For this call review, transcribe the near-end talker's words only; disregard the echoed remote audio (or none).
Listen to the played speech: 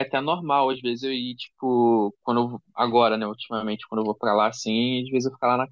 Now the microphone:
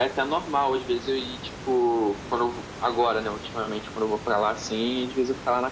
none